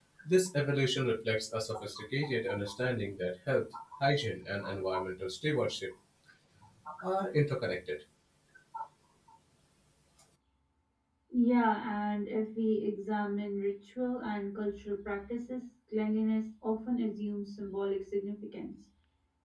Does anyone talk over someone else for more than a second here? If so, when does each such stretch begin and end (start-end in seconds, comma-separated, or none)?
none